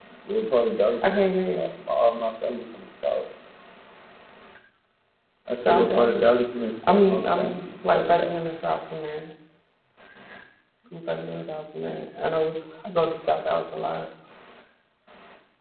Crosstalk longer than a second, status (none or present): present